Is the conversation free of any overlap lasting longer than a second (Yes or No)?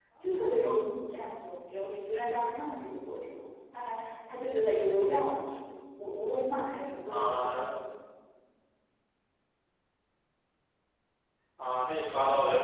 Yes